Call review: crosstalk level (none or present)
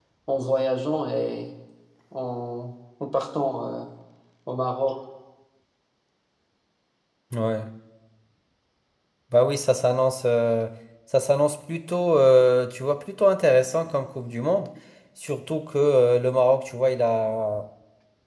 none